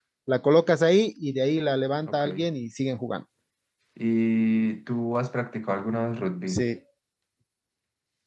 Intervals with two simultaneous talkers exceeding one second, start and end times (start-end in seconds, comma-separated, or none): none